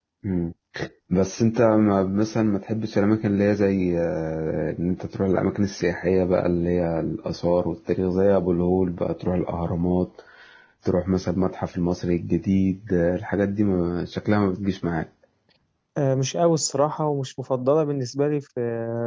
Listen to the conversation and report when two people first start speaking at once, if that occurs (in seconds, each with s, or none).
none